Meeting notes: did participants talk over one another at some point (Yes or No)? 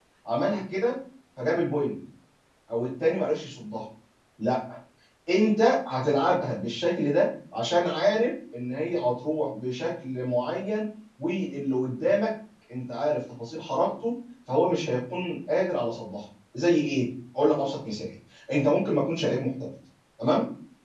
No